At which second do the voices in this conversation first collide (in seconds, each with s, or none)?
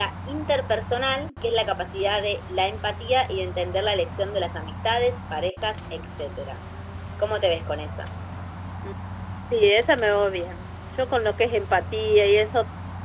none